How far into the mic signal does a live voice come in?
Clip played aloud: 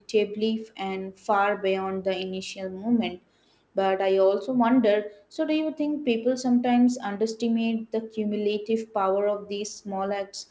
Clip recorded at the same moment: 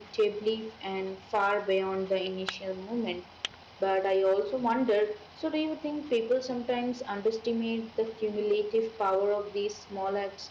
none

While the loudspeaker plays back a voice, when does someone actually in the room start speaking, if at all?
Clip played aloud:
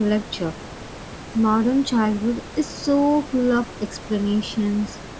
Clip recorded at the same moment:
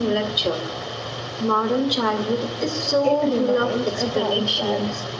3.0 s

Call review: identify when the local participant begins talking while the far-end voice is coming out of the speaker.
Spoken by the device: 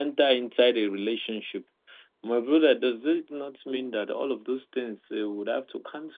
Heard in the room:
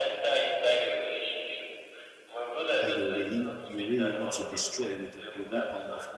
2.8 s

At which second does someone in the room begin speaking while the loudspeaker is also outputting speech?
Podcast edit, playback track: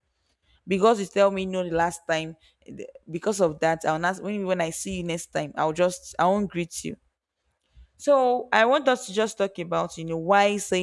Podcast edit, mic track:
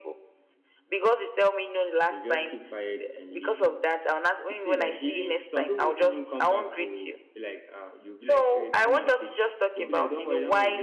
2.0 s

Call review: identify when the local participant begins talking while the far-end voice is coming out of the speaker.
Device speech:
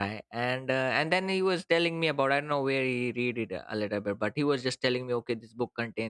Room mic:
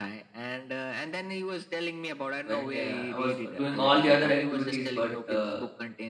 2.4 s

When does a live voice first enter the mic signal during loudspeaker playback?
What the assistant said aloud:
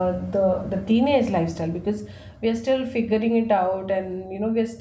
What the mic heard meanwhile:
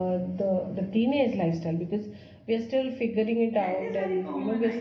3.5 s

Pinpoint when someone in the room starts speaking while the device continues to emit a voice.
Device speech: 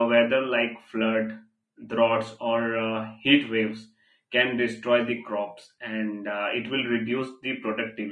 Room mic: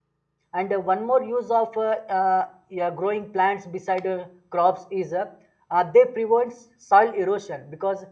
0.5 s

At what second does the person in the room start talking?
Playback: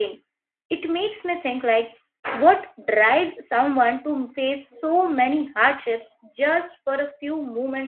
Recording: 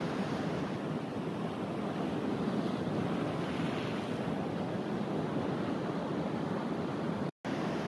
none

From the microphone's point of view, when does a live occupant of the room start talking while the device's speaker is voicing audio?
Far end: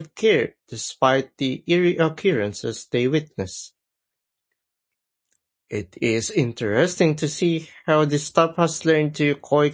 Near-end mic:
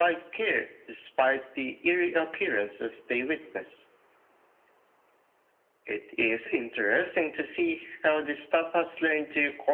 none

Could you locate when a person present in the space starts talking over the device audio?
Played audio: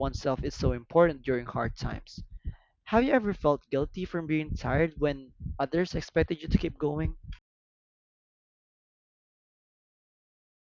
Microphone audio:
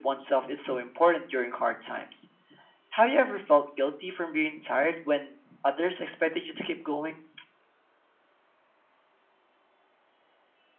none

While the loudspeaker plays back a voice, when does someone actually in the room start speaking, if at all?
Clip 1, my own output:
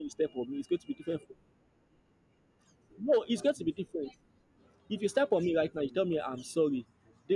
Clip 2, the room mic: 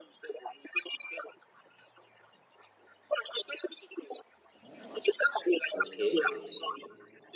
5.7 s

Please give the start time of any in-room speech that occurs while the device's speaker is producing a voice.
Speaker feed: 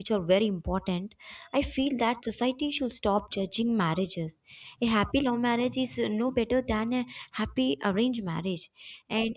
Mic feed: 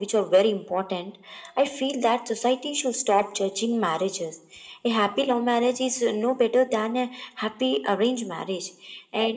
none

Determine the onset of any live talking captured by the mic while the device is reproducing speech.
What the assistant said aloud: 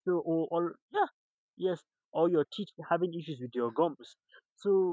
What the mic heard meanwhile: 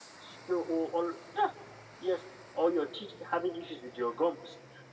none

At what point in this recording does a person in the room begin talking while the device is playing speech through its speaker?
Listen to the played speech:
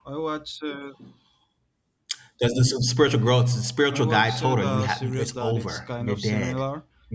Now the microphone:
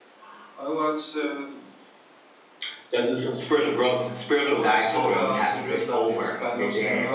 none

